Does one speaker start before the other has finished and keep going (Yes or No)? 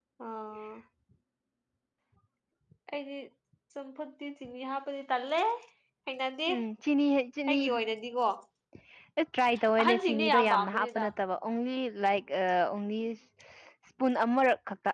Yes